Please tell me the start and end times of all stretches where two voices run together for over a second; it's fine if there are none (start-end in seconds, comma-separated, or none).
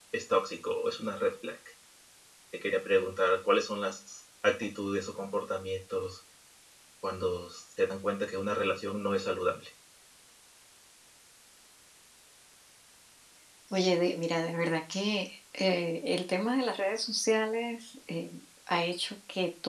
none